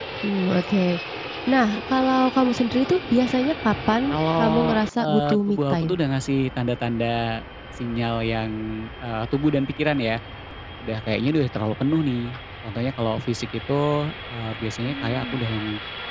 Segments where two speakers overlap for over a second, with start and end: 4.4-5.9

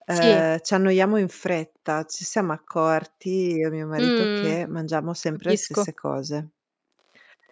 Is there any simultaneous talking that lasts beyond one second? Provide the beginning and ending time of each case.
none

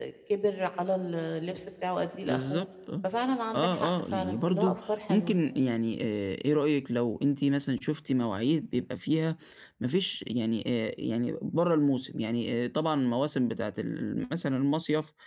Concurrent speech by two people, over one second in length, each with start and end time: 3.5-4.7

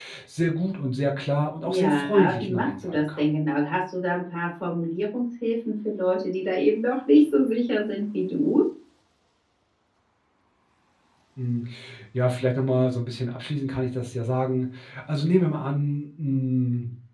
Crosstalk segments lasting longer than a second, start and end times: 1.6-3.3

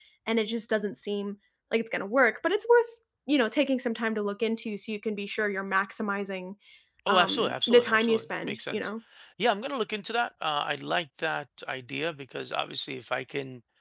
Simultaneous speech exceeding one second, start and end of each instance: 7.1-8.9

